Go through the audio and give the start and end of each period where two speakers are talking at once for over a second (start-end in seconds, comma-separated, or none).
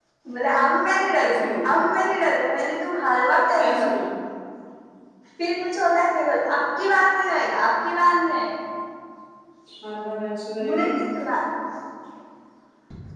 none